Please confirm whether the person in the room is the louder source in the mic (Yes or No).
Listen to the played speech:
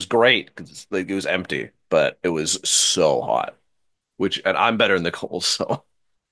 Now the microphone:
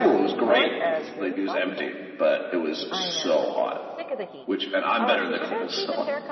No